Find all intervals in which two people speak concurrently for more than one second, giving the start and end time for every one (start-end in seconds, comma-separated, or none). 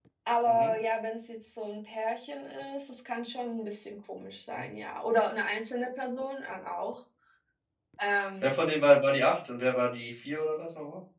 none